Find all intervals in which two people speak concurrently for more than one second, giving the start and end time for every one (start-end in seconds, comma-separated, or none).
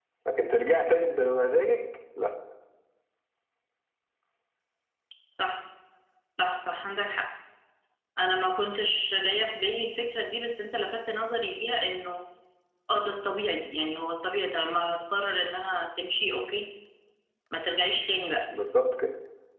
none